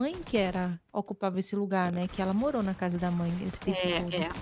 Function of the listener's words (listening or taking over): taking over